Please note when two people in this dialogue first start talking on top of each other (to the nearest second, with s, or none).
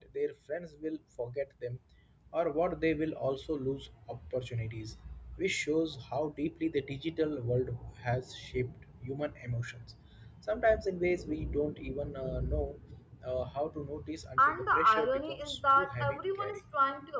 14 s